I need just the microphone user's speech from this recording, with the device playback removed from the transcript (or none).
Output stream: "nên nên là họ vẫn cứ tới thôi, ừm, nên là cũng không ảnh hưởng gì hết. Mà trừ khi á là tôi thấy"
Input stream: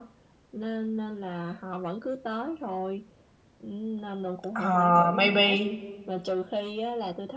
Ờ, maybe.